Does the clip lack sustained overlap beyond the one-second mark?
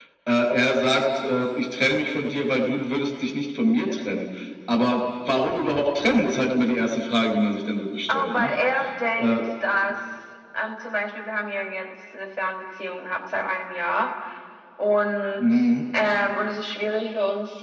Yes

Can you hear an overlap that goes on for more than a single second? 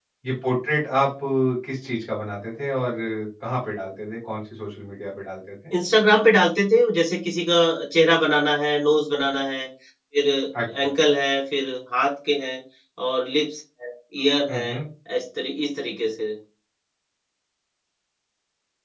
No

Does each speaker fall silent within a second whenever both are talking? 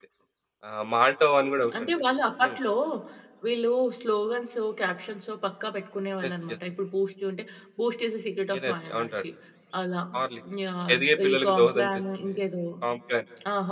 No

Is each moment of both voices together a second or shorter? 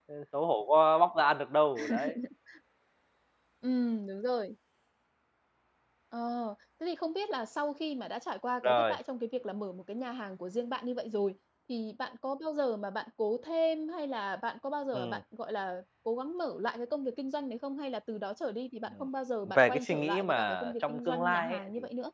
No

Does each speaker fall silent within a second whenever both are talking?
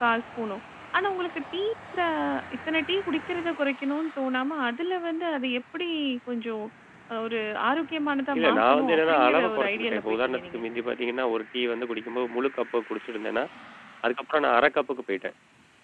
No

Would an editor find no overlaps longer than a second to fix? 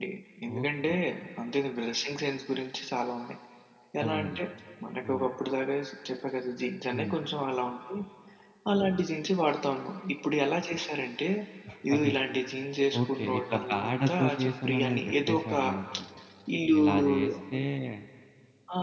No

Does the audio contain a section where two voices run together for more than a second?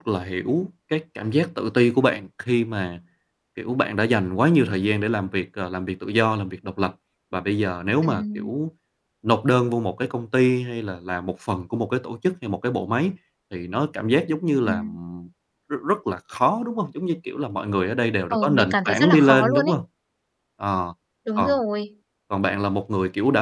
Yes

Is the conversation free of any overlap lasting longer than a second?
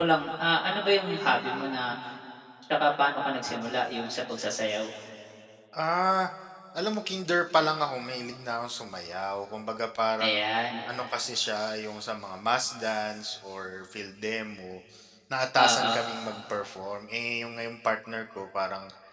Yes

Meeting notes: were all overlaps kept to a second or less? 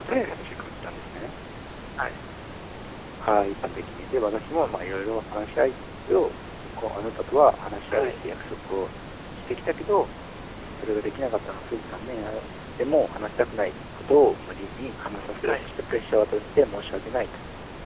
Yes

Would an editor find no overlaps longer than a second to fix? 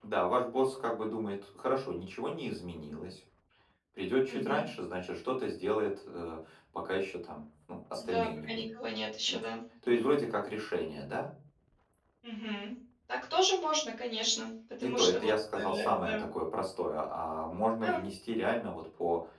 No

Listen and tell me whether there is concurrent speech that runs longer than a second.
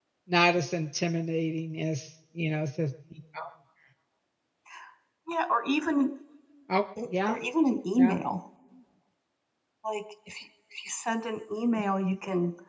No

